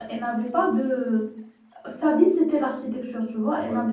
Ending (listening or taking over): listening